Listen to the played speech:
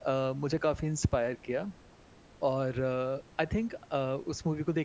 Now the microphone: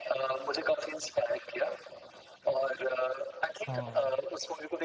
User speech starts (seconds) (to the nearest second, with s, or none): 4 s